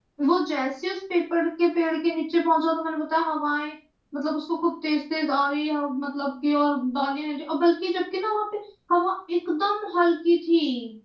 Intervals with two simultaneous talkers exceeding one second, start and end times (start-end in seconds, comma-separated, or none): none